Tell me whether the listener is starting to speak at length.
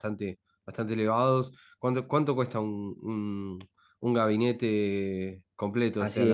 Yes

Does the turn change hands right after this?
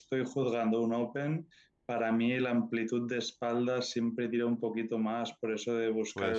No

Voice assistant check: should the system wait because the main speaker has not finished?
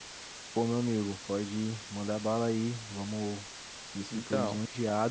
Yes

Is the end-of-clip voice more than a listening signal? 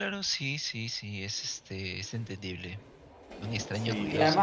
Yes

